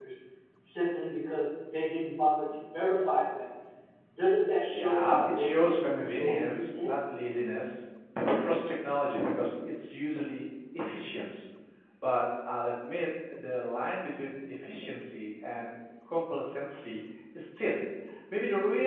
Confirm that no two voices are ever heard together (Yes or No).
No